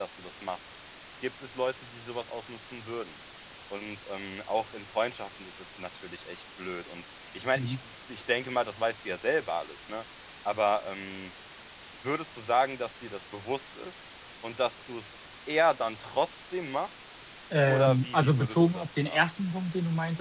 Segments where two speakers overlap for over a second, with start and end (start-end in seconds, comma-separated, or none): 17.7-19.2